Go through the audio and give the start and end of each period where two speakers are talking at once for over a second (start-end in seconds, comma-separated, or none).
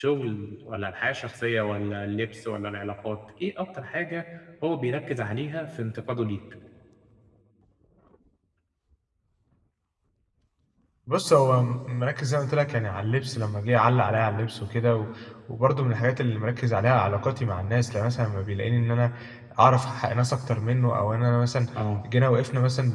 none